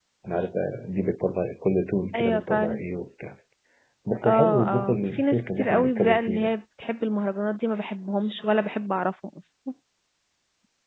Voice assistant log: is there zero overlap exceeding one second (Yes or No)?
No